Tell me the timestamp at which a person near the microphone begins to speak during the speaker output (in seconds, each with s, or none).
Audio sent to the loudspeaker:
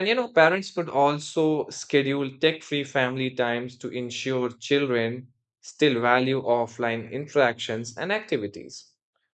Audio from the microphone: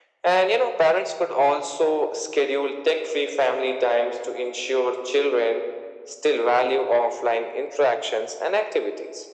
none